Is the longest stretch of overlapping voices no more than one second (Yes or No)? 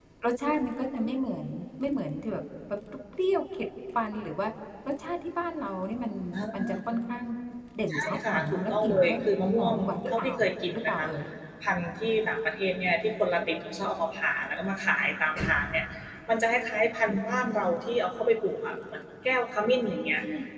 No